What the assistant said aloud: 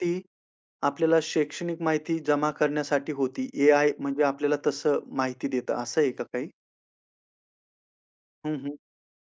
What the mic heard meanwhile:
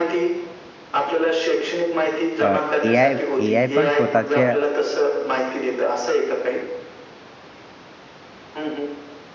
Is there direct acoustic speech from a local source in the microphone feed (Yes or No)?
Yes